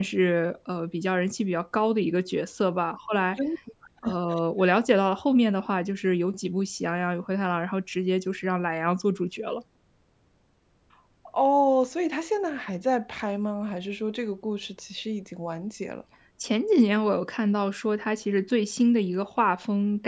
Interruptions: none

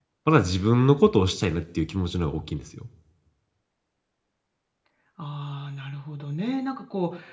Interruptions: none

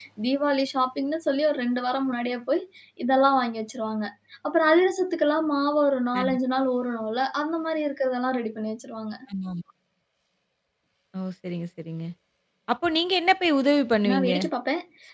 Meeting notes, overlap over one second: none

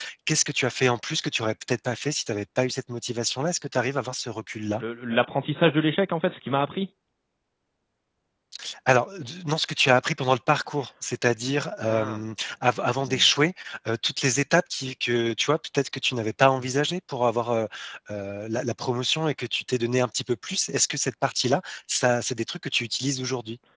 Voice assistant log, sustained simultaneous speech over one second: none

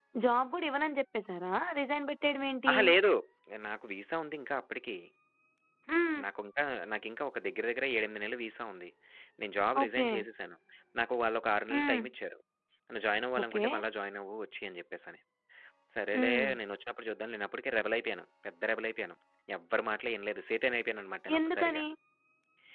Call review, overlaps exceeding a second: none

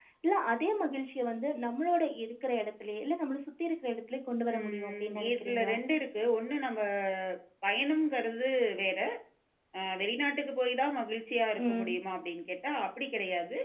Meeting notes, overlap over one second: present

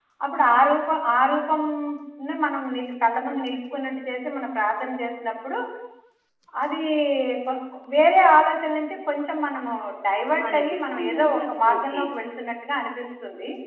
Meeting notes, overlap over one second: present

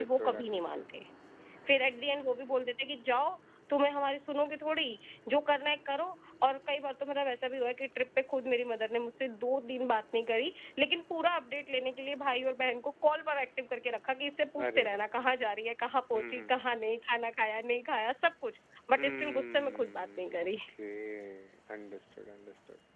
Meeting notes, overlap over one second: present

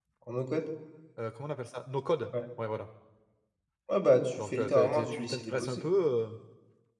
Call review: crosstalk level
present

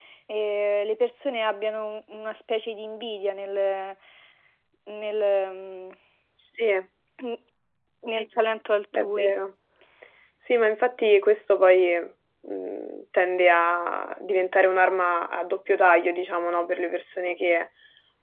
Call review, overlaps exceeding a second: none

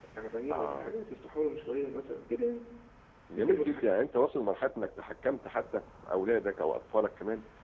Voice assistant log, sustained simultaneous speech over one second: none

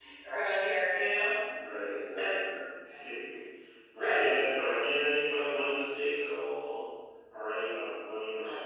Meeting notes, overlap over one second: none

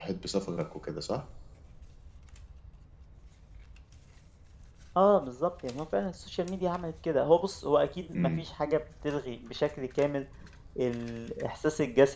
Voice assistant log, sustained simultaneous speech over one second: none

